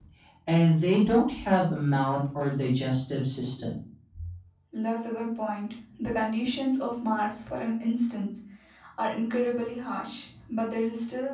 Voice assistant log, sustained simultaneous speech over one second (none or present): none